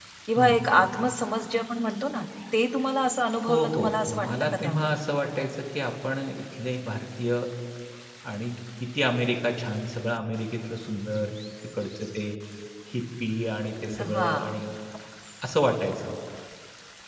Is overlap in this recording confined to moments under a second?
No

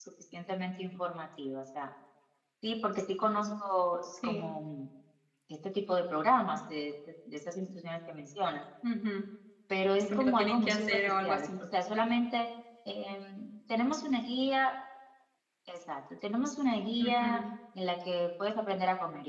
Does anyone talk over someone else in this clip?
Yes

